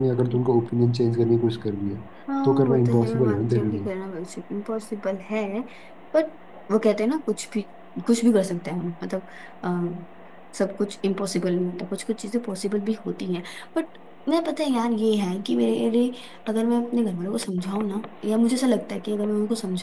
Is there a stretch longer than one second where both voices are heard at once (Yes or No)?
Yes